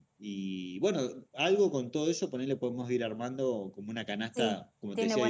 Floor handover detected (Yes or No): Yes